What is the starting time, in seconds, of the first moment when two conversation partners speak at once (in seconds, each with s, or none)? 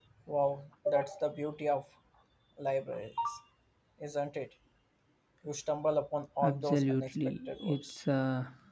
6.4 s